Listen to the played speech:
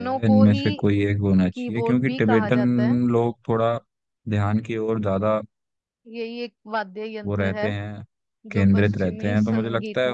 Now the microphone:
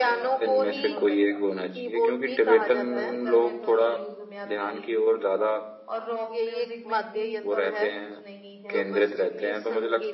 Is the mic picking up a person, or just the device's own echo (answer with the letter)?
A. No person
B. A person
B